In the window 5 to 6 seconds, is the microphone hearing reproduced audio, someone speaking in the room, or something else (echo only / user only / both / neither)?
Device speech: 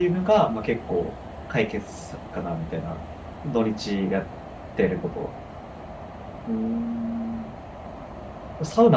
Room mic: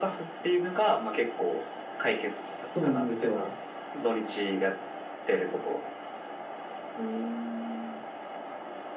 echo only